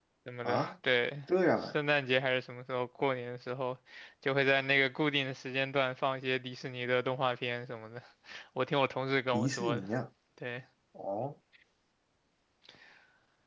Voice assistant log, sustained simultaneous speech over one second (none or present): none